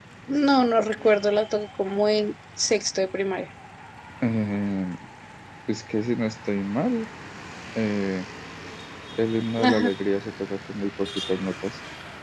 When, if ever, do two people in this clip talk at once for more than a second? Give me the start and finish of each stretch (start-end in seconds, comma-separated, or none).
none